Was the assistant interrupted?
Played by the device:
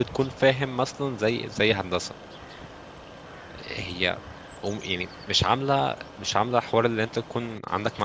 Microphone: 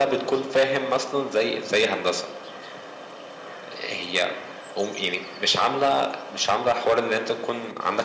No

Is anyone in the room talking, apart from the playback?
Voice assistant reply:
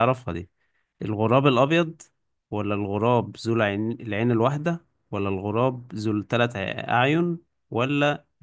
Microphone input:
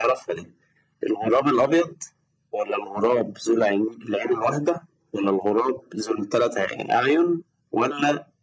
No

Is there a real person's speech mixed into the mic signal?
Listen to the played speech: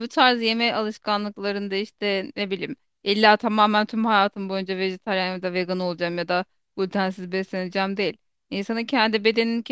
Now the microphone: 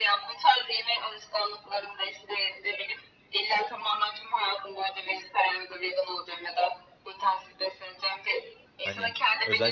Yes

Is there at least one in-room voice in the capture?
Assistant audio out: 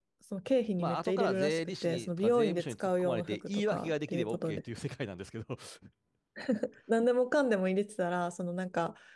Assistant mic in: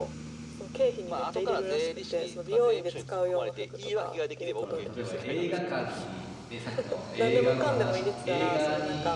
Yes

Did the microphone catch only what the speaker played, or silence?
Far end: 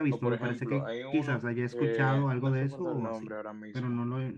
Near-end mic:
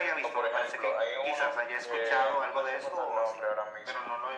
Yes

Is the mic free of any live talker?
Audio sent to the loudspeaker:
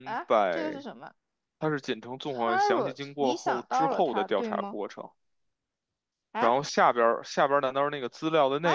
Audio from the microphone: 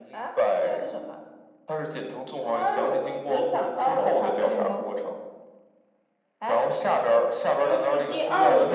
No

